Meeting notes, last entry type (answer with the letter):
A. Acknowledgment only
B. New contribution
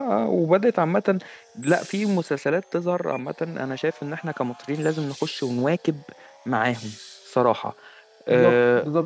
B